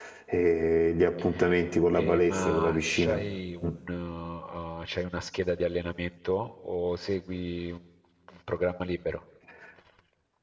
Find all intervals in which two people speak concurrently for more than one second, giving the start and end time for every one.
1.9-3.2

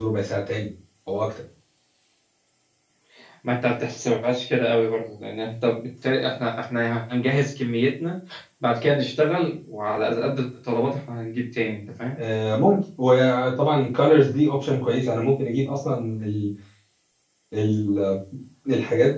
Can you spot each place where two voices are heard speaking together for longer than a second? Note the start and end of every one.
none

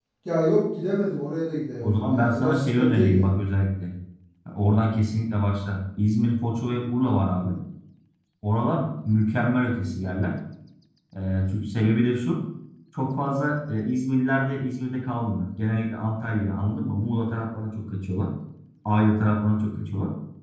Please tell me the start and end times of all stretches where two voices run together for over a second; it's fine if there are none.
1.8-3.3

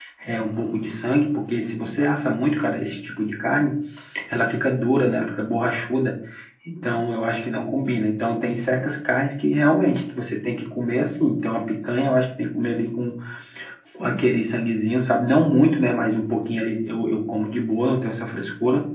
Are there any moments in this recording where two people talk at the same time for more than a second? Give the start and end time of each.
none

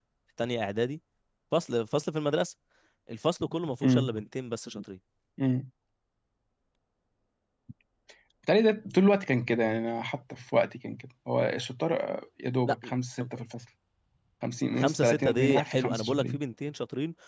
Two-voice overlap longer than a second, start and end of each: 14.7-16.4

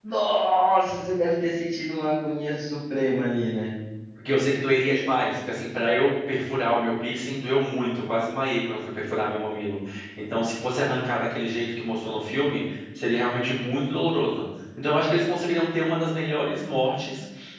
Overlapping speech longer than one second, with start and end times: none

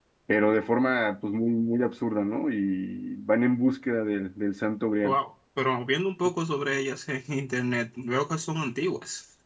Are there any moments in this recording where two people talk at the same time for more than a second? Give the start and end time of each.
none

